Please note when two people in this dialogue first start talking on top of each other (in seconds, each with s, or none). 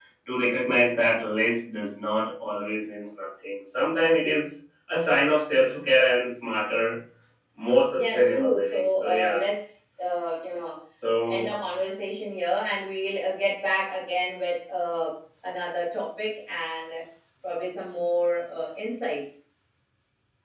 8.0 s